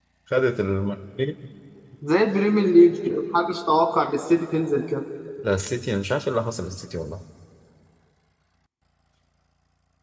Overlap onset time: none

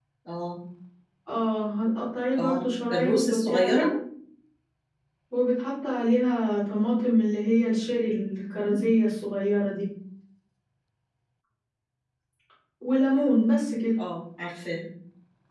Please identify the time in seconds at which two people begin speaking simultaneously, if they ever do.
2.4 s

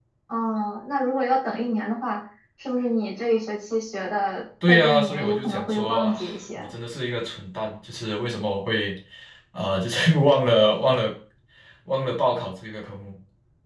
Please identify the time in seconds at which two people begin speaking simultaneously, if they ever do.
4.6 s

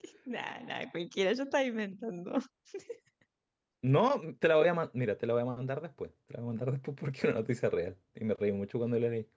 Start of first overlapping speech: none

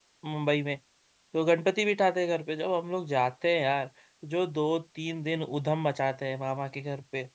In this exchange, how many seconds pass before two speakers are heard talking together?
none

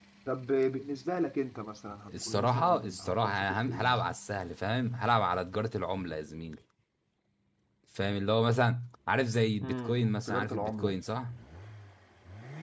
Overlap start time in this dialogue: 2.2 s

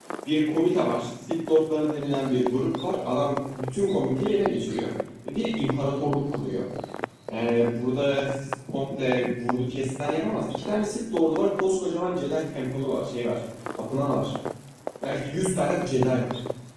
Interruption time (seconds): none

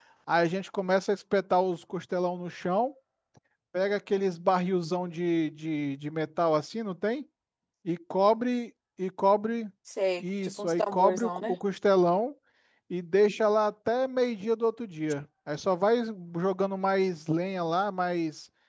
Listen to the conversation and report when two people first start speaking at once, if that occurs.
10.2 s

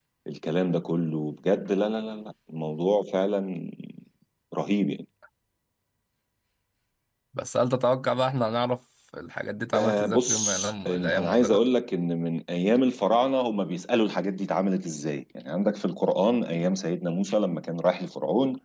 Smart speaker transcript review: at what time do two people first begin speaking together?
9.7 s

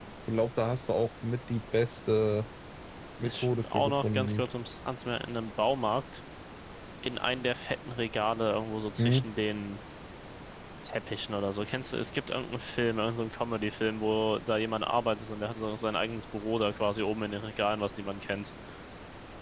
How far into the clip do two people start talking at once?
3.2 s

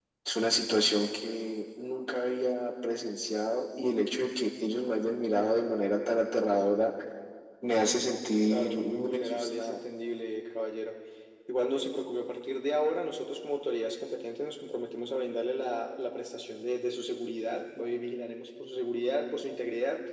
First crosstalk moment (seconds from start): 8.5 s

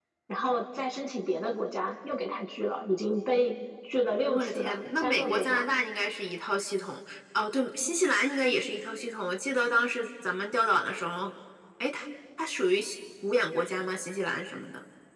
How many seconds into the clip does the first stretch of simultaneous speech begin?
4.2 s

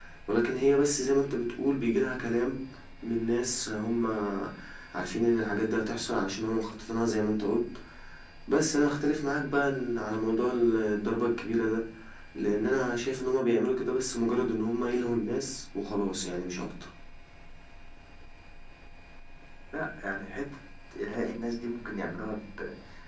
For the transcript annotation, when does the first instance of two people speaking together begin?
none

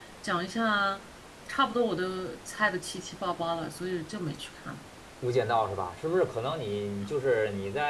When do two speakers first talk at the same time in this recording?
none

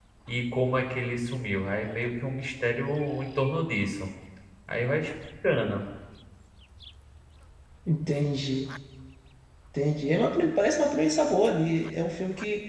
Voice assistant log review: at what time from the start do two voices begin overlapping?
none

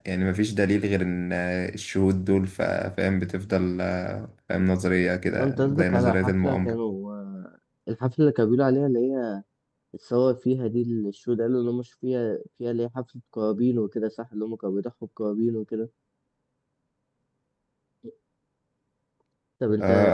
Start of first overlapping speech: 5.4 s

